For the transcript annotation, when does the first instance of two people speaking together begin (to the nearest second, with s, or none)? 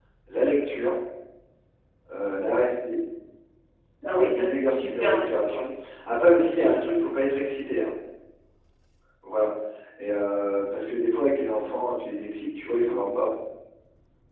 4 s